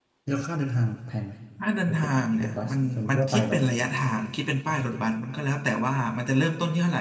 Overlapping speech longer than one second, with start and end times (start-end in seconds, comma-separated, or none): 2.4-3.6